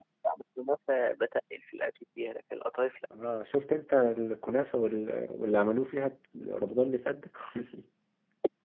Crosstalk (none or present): none